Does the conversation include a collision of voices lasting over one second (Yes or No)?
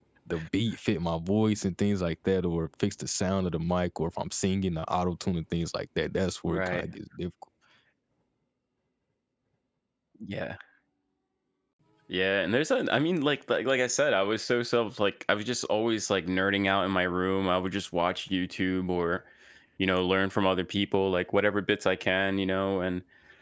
No